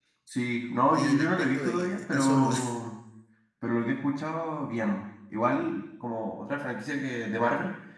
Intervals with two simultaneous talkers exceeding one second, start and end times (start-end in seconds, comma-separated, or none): 0.9-2.5